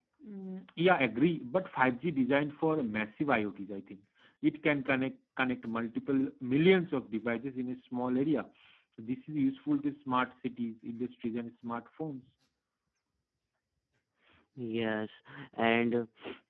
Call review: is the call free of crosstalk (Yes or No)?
Yes